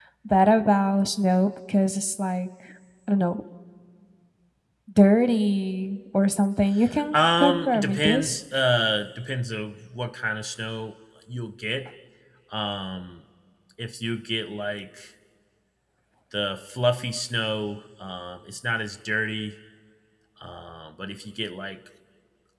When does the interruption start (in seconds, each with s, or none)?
7.1 s